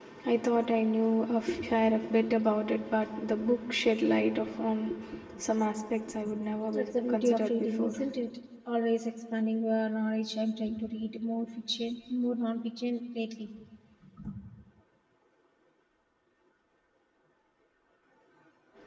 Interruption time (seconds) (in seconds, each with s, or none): 6.7 s